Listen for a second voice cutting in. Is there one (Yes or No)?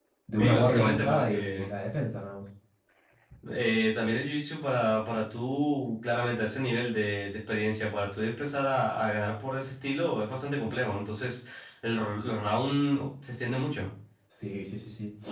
Yes